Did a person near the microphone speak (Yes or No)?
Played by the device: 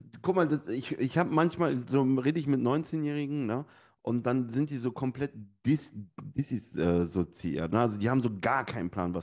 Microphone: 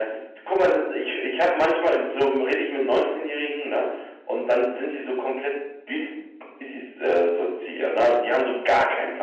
No